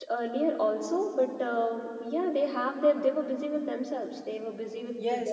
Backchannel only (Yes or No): No